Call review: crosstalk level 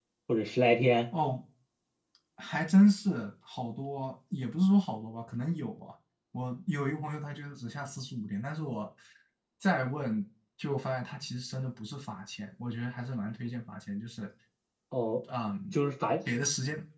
none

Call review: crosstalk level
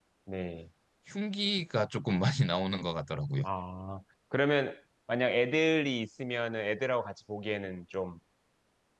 none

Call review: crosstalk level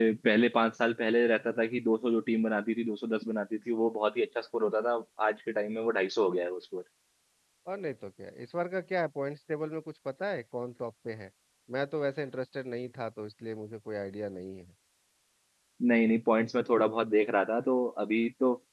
none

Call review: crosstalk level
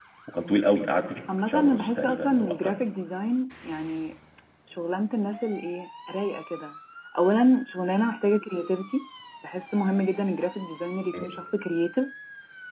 present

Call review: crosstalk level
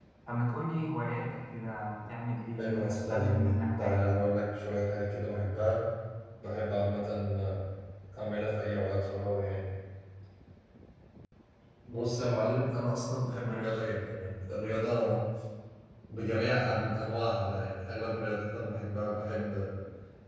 present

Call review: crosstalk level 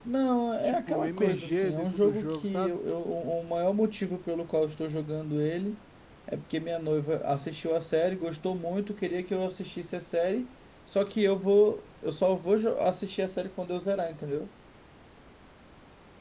present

